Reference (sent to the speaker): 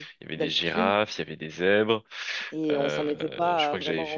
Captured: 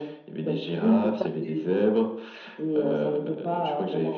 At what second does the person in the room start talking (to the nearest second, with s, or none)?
1 s